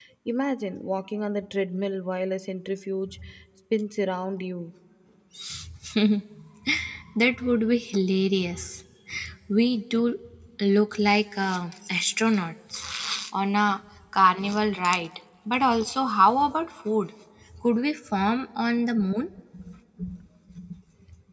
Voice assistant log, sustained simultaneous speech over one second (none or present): none